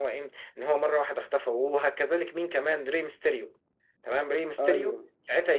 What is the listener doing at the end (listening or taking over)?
listening